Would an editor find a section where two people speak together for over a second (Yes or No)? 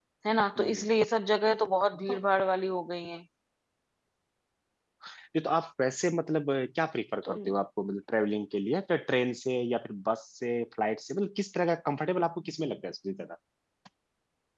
No